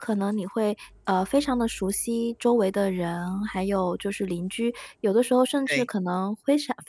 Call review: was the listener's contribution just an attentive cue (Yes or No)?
Yes